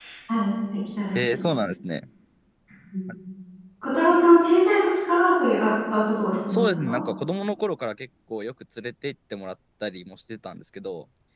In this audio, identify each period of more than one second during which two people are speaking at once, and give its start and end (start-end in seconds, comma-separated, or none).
none